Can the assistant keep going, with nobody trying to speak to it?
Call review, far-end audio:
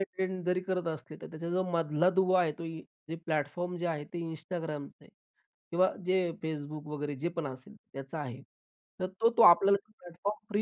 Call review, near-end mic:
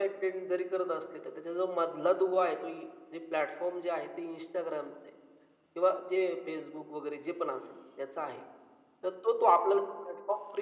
Yes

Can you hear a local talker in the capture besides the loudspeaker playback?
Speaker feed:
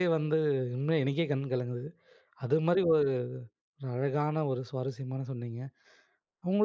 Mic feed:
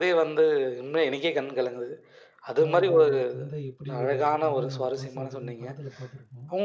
Yes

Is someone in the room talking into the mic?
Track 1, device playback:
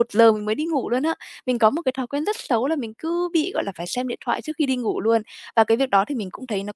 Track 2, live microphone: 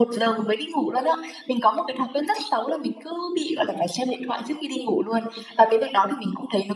No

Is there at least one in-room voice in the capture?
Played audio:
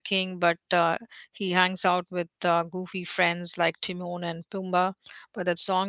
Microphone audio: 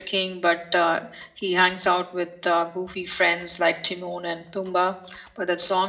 No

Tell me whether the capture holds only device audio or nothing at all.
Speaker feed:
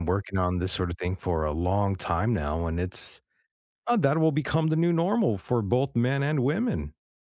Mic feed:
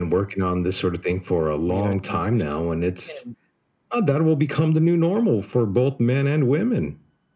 No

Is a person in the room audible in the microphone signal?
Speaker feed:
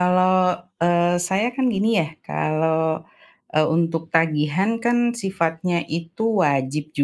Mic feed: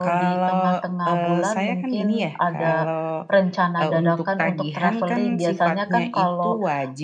Yes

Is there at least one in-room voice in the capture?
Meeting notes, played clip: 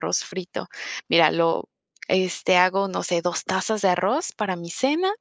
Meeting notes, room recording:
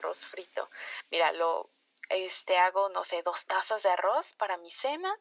No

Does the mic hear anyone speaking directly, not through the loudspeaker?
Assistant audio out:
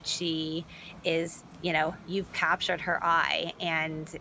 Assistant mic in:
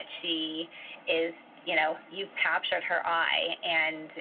No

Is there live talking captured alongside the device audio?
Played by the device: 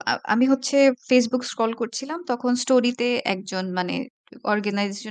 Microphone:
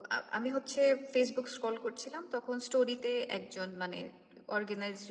No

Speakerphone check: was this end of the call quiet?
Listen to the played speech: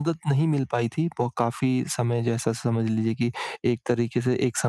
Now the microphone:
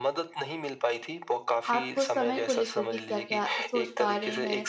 No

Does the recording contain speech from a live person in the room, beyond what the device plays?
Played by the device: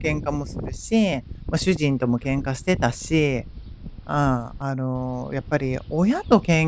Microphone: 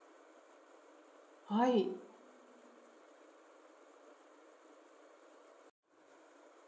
Yes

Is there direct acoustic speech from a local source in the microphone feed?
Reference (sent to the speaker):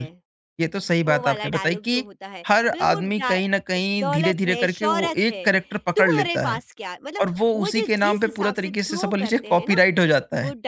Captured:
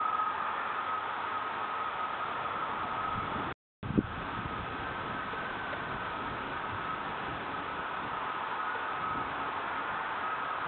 No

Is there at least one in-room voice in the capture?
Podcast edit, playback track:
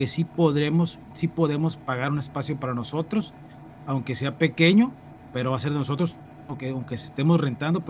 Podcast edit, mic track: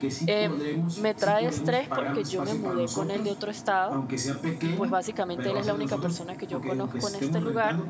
Yes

